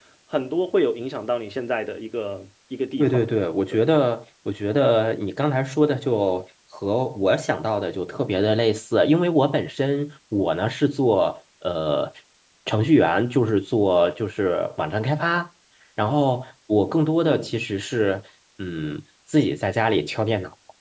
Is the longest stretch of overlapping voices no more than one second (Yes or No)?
Yes